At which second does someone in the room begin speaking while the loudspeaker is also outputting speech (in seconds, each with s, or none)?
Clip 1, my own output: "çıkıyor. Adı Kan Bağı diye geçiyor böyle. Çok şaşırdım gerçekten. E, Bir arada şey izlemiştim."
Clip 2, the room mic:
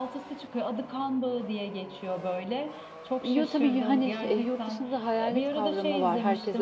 3.2 s